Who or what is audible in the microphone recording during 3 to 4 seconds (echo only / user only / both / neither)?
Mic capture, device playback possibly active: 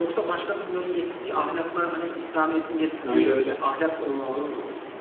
both